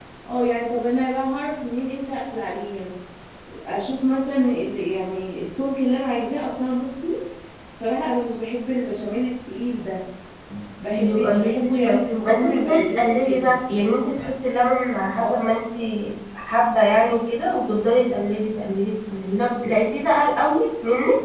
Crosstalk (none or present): present